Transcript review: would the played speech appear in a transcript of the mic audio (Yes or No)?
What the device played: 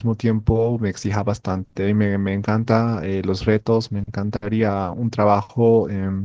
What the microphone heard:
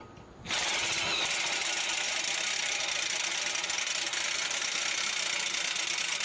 No